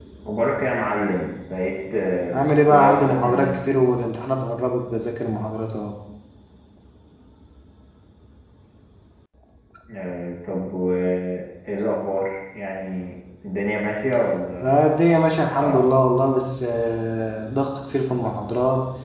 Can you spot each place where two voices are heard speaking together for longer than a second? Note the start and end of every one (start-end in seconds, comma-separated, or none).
2.3-3.6